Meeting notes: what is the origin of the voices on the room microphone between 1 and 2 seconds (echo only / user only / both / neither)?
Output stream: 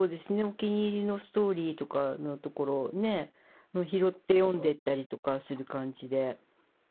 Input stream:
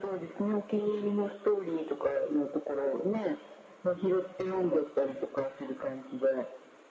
echo only